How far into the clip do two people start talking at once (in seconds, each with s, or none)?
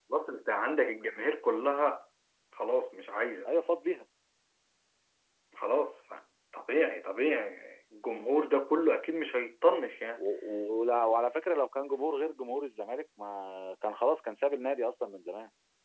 none